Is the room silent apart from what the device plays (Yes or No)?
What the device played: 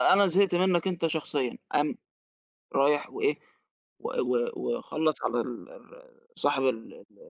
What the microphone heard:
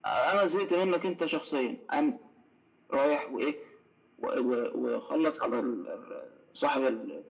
Yes